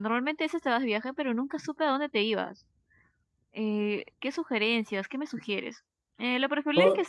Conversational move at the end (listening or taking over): listening